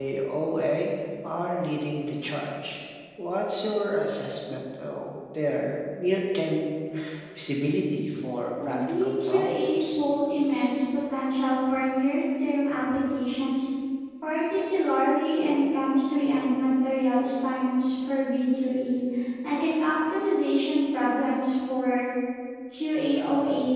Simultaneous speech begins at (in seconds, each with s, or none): 8.6 s